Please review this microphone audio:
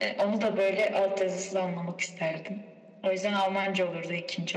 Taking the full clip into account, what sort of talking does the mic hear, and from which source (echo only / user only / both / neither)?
echo only